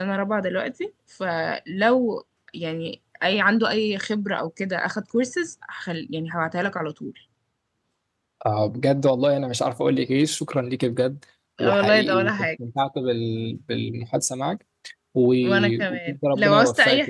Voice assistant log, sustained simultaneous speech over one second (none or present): present